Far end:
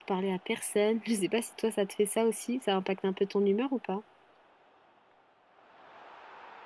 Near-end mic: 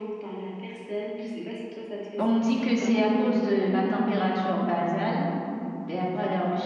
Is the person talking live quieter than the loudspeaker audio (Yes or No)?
No